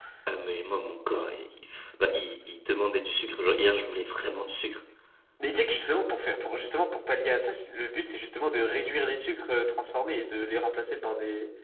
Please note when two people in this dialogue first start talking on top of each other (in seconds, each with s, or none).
none